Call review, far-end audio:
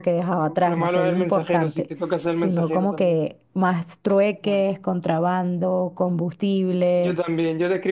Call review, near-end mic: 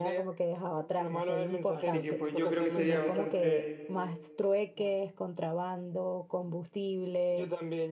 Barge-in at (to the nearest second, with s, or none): 2 s